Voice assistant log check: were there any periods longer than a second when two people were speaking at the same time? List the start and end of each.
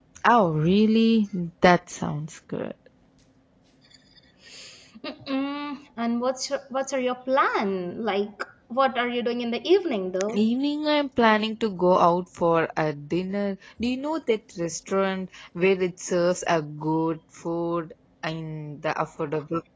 none

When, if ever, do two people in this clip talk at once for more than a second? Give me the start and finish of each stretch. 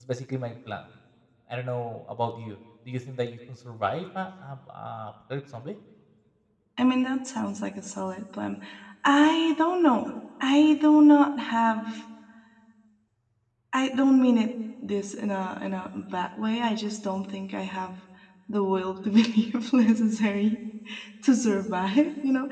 none

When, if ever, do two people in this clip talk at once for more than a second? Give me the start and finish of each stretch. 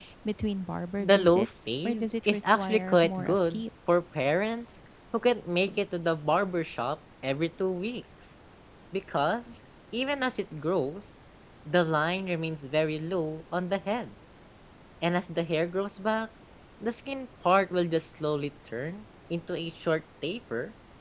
1.0-3.6

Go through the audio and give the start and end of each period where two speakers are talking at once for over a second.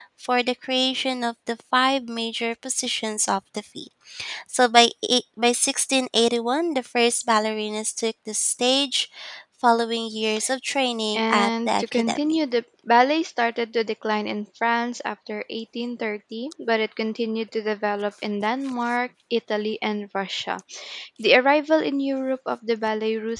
11.1-12.4

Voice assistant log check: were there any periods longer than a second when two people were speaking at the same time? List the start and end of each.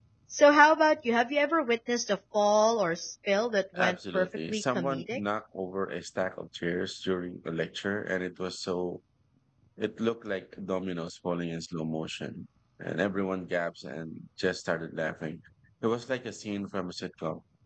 3.8-5.2

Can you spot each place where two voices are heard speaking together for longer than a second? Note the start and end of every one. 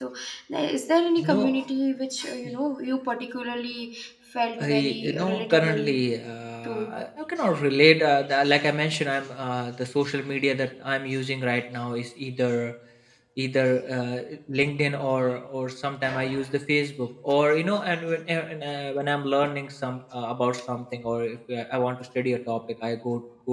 4.6-6.0

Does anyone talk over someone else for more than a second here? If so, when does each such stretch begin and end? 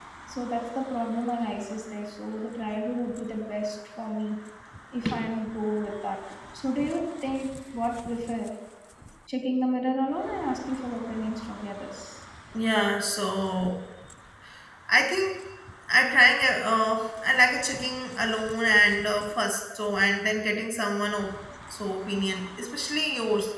none

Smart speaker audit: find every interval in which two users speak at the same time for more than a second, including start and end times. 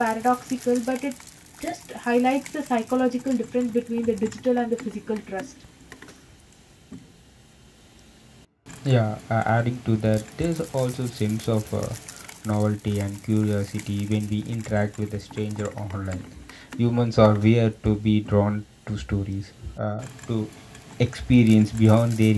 none

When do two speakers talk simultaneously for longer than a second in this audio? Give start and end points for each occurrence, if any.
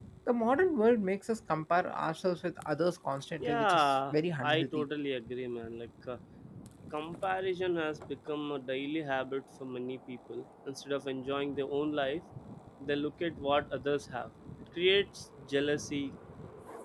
3.4-4.8

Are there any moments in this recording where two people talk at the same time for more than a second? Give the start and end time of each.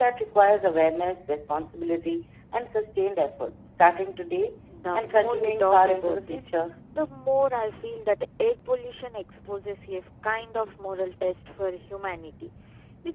4.9-6.5

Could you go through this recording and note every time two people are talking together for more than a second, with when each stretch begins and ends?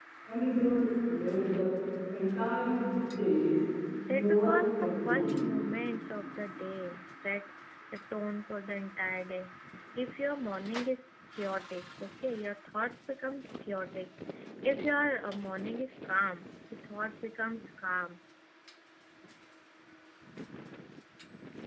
4.1-5.4

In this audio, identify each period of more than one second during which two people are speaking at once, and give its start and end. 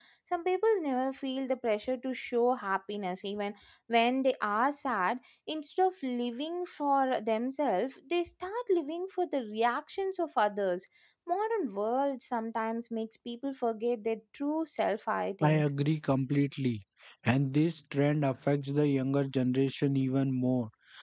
none

